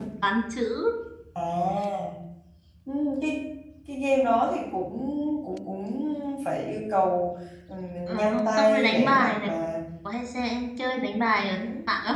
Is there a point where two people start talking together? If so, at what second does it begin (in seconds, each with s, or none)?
8.1 s